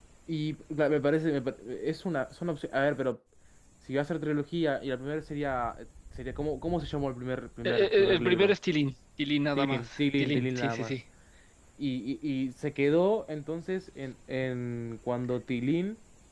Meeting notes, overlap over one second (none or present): present